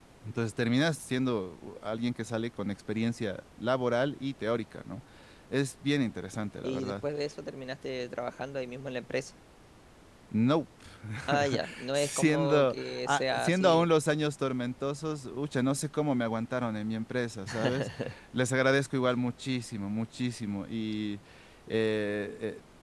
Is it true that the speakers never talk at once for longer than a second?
No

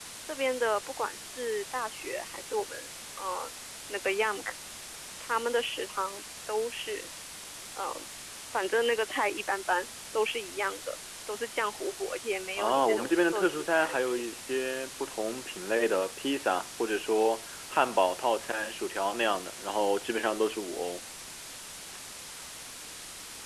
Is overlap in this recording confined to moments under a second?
No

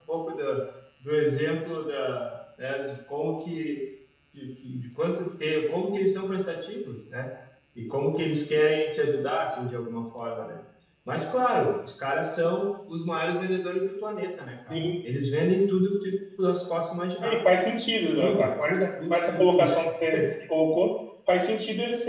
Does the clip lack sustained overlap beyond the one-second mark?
No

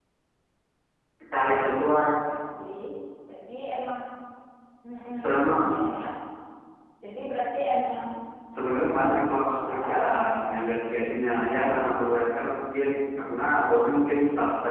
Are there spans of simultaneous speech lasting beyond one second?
No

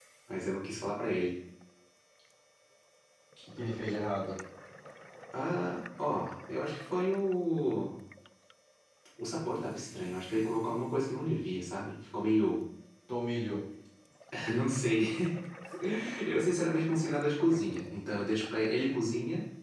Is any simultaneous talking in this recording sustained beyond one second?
No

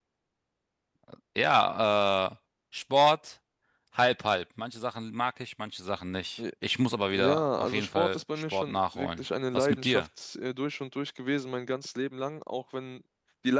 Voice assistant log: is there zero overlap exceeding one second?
No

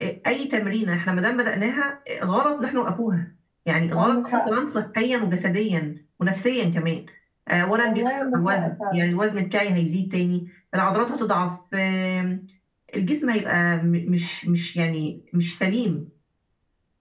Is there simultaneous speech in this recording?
Yes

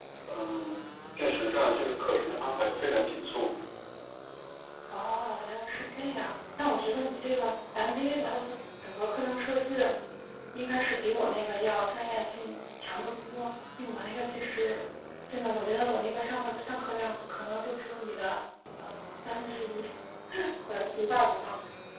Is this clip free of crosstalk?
Yes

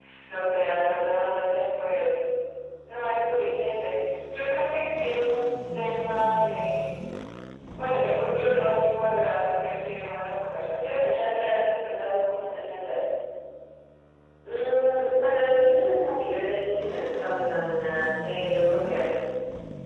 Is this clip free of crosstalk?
Yes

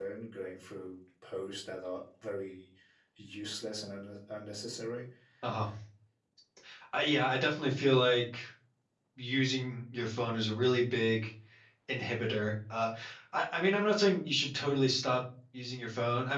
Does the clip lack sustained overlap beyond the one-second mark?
Yes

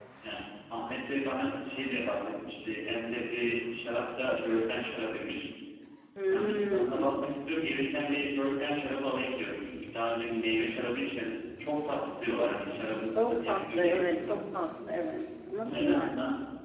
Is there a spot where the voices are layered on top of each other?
Yes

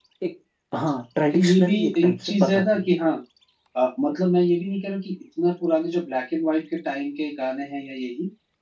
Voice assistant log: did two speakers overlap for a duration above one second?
Yes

